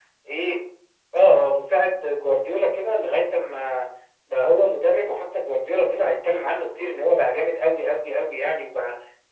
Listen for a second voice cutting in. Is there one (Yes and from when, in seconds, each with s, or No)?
No